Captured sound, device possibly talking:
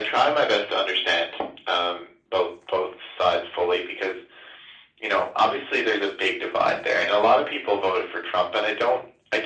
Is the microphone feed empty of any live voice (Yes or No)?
Yes